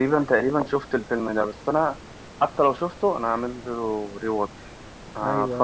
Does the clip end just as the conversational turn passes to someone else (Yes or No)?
Yes